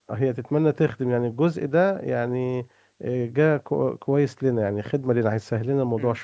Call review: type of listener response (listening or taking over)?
taking over